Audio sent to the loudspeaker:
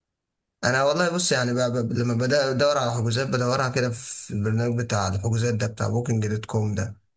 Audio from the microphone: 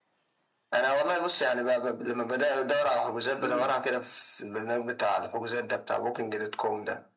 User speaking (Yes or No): Yes